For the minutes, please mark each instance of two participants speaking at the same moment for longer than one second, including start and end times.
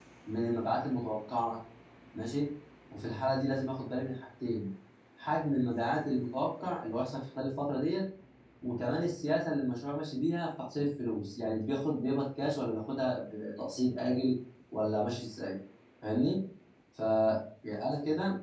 none

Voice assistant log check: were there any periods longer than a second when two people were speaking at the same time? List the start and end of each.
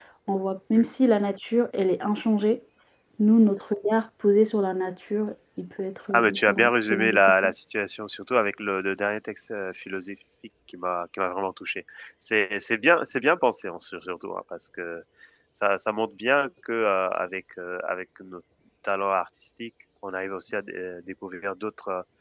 6.1-7.5

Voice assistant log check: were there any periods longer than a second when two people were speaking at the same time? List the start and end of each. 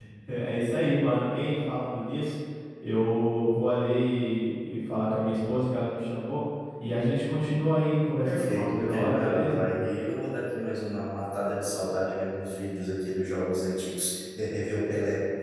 8.2-9.7

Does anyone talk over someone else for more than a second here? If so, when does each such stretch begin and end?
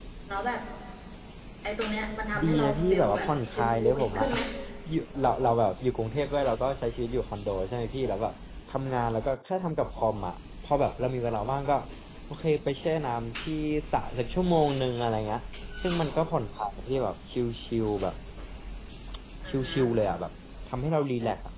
2.4-4.3

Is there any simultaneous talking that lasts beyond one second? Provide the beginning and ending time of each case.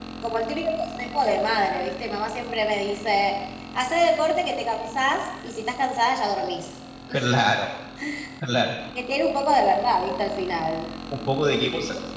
none

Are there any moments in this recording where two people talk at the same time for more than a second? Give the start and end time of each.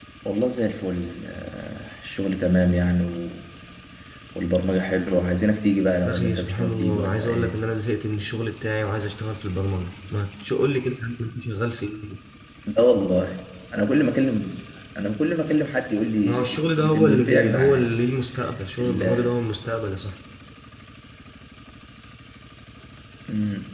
6.1-7.6, 16.2-17.9

